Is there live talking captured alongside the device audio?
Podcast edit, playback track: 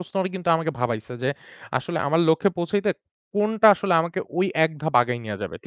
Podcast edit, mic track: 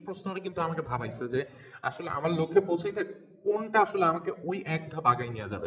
No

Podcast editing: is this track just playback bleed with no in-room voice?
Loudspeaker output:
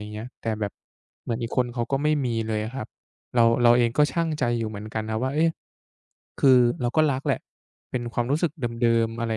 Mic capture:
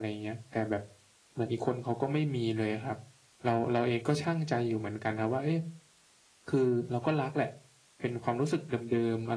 Yes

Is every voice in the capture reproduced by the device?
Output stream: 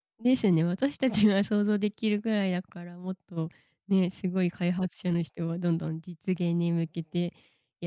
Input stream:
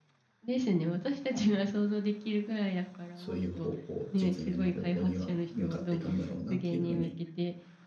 No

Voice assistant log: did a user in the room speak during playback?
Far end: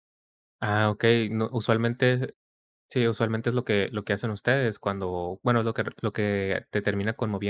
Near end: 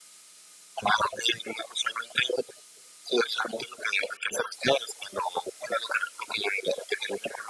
No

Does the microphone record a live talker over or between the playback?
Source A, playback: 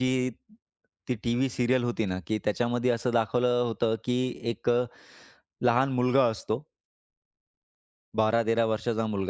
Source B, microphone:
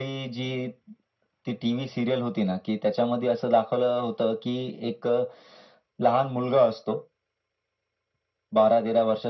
No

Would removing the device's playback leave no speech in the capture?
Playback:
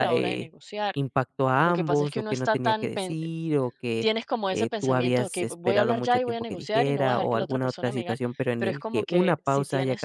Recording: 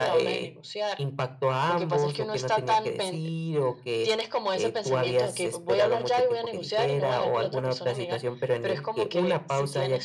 Yes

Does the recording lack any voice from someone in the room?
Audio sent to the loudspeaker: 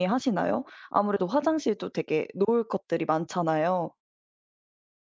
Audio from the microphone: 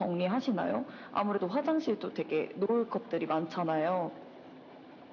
Yes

